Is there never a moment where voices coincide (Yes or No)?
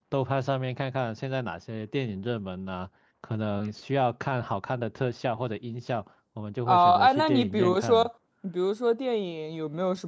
No